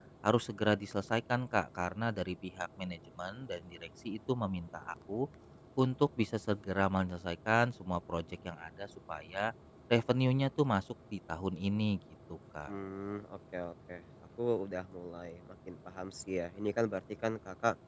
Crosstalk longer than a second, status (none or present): none